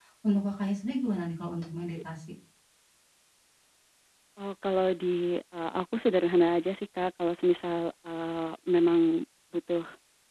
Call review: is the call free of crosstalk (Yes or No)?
Yes